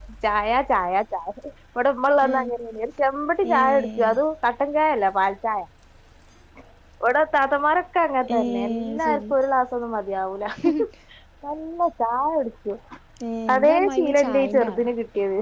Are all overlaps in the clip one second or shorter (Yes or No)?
No